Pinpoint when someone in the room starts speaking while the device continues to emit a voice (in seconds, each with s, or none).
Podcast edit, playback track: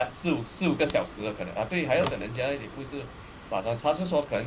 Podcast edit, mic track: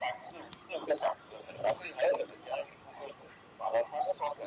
none